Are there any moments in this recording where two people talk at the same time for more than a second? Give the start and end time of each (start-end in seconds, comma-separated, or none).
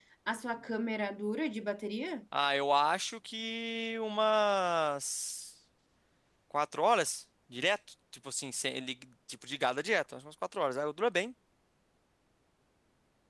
none